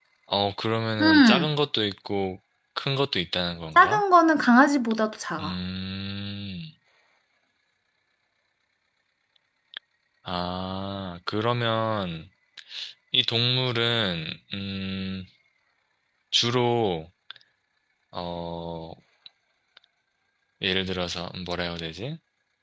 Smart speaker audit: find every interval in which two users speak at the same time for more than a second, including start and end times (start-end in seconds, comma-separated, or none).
none